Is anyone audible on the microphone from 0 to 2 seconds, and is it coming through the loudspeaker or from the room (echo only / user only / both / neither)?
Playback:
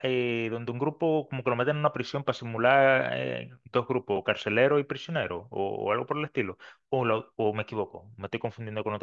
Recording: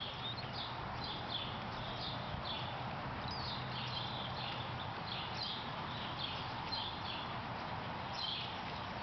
neither